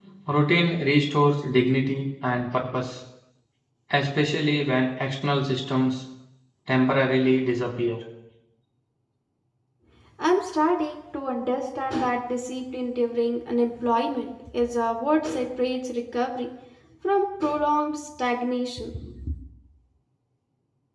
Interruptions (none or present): none